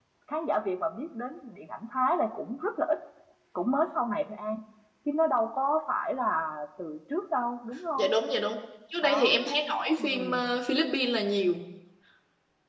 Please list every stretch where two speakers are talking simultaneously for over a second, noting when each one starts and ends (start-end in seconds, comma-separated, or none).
none